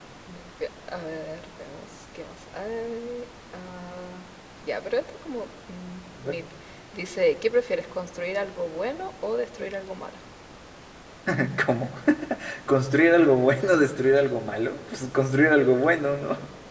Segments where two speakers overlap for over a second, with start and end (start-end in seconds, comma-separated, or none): none